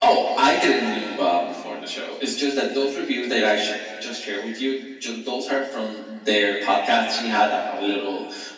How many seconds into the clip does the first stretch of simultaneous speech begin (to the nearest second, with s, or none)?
none